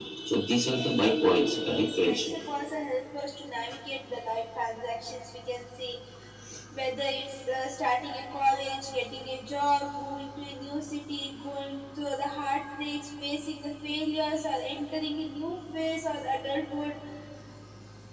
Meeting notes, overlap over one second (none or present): present